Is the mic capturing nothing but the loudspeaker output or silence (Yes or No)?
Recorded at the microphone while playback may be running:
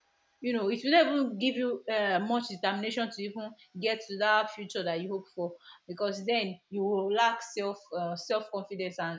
No